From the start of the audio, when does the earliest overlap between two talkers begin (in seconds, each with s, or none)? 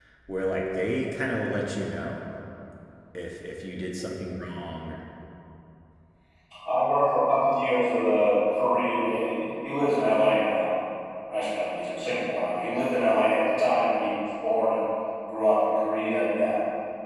none